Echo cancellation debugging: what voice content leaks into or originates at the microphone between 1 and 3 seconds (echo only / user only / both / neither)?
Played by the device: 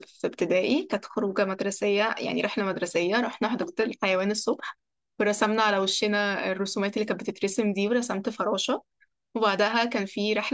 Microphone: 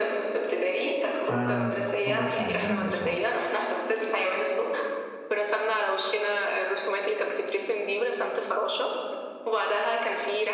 both